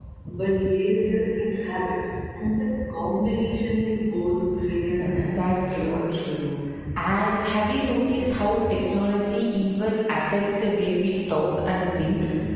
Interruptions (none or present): present